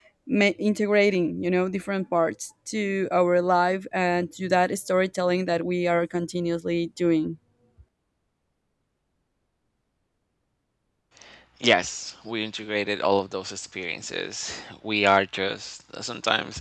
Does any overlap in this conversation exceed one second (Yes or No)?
No